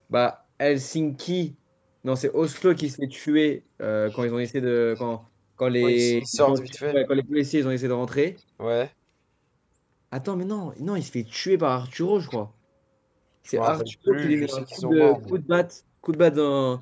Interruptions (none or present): present